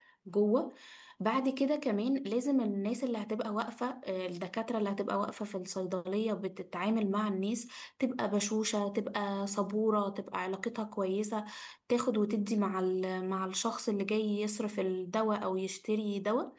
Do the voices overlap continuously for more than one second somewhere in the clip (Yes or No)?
No